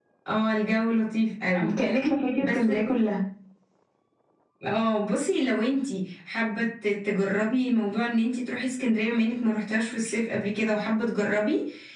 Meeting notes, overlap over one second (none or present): none